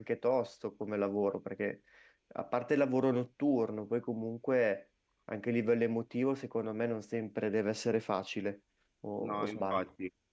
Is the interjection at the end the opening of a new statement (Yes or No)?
Yes